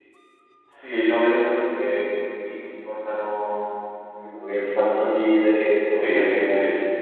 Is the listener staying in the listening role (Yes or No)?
No